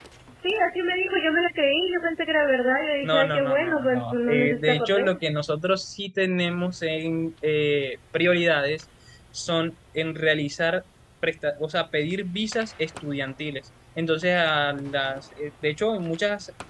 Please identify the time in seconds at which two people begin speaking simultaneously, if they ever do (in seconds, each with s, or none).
3.0 s